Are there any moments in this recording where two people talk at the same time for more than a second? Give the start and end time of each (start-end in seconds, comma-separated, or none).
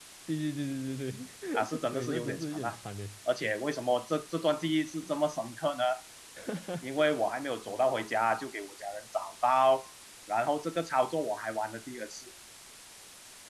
1.5-2.8